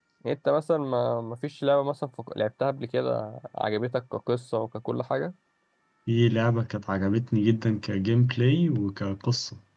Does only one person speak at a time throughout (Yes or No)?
Yes